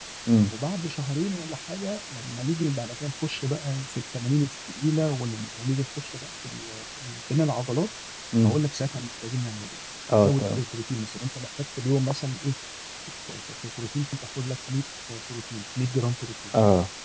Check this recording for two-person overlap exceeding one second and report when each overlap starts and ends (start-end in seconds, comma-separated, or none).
none